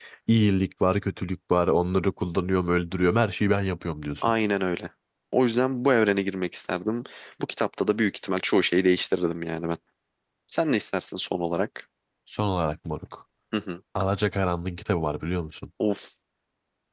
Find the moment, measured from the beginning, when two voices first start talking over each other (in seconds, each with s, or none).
none